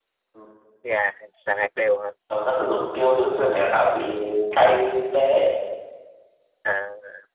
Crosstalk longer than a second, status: none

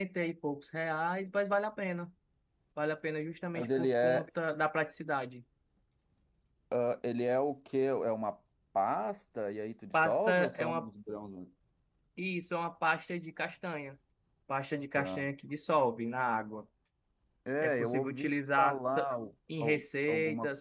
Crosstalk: present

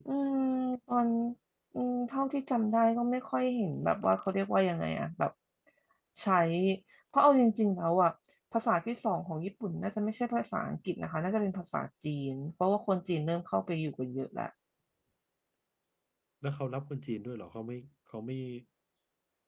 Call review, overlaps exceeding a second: none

